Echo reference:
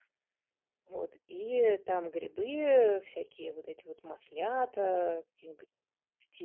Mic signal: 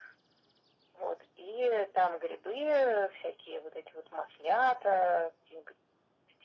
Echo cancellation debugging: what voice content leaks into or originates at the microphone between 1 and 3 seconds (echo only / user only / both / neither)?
echo only